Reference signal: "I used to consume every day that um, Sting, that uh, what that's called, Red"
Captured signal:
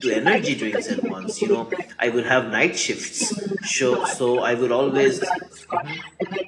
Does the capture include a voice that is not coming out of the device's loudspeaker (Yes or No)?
Yes